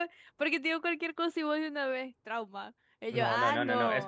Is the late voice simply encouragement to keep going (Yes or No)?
No